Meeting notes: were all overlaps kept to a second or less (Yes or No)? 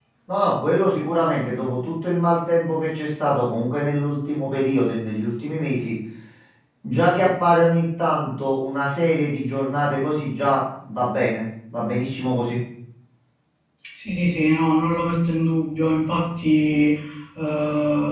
Yes